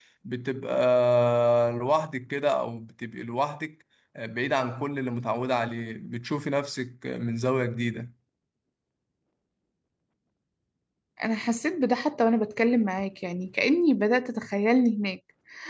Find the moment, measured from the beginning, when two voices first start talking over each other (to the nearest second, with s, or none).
none